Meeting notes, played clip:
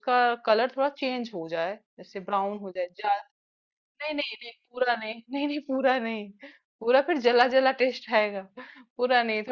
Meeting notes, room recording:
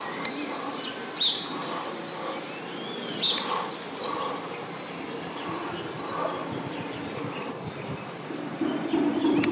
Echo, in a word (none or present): none